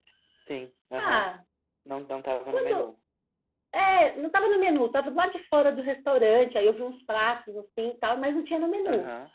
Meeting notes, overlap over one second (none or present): none